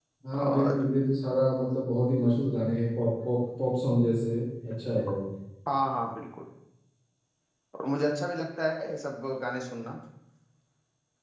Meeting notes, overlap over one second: none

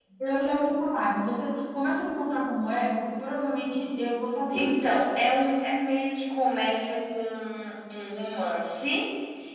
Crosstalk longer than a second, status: none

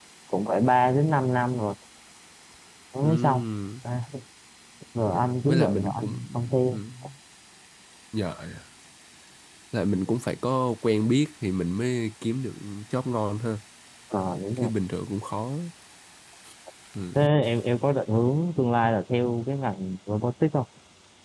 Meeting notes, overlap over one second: present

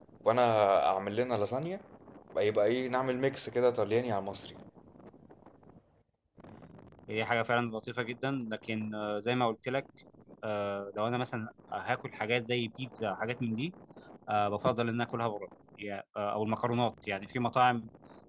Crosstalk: none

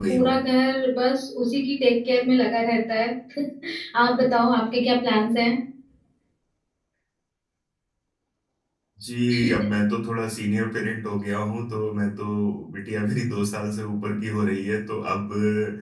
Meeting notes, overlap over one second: none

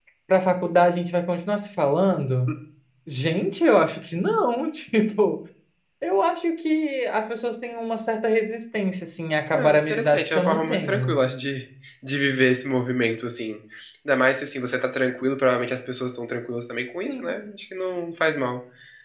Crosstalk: present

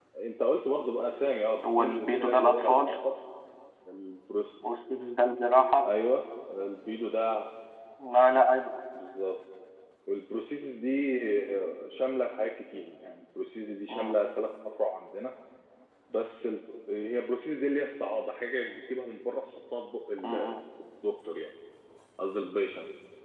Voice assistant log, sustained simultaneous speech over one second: present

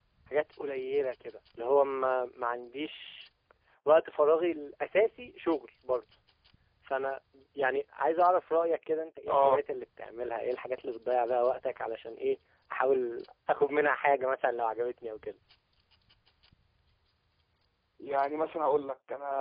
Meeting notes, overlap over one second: none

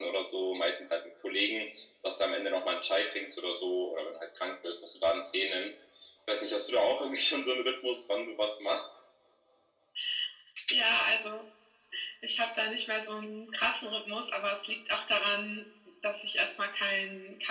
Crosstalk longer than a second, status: none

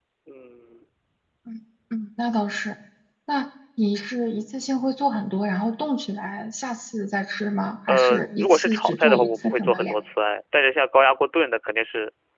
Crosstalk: present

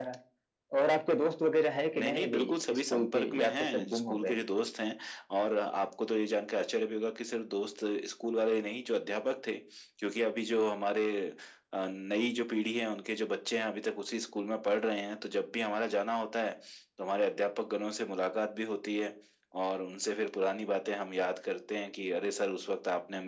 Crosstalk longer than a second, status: present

